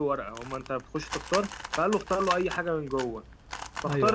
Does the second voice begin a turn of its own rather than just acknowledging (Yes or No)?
No